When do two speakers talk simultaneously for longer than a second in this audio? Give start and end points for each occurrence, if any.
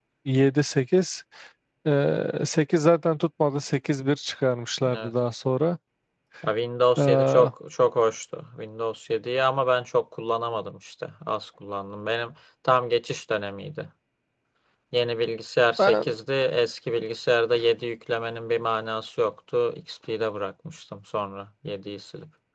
none

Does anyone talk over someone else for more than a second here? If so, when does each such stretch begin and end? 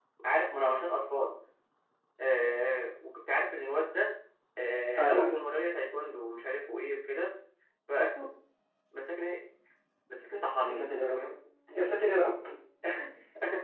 none

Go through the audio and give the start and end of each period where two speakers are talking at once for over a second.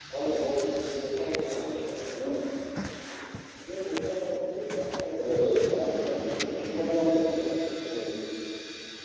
5.2-7.3

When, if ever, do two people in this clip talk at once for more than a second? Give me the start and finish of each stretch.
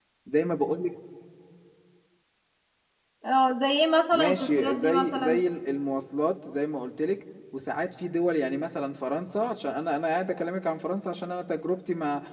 4.1-5.4

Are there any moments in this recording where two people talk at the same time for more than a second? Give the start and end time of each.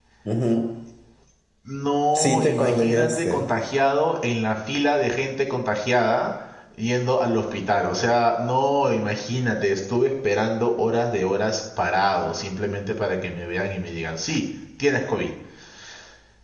2.1-3.4

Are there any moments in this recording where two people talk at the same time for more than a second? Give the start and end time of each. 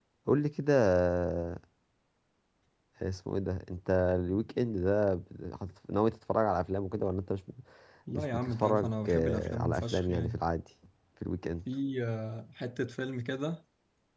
8.1-10.5

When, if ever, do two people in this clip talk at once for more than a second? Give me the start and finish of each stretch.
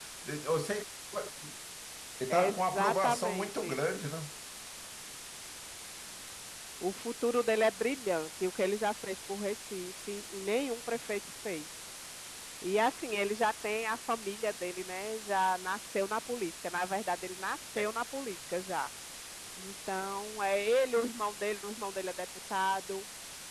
2.3-3.8

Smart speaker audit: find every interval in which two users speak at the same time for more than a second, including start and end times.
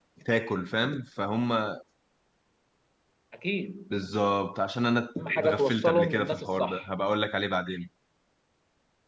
5.2-6.9

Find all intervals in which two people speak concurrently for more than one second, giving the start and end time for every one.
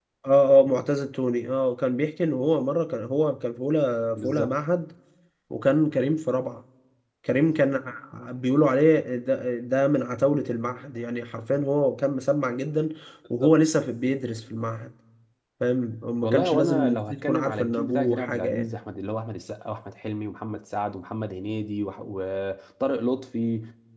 16.2-18.7

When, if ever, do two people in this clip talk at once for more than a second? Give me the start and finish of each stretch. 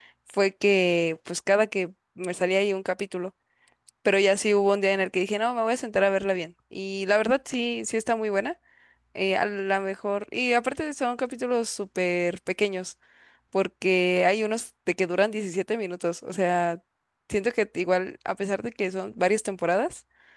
none

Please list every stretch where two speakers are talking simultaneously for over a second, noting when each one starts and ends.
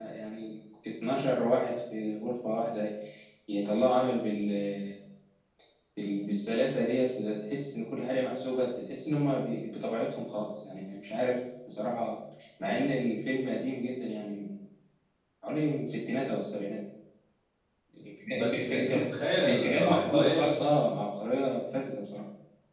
18.4-20.5

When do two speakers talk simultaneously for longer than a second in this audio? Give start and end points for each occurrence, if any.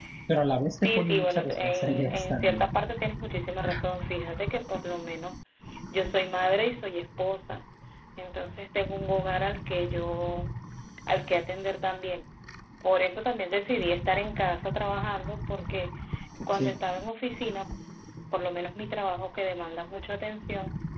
0.8-2.7

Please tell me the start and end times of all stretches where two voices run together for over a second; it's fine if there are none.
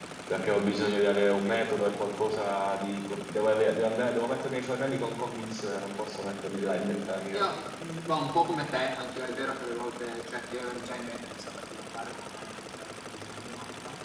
none

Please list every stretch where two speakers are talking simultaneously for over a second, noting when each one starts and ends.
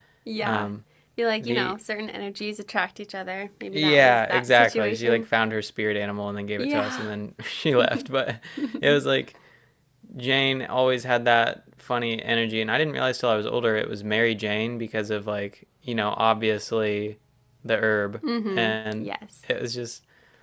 3.7-5.2

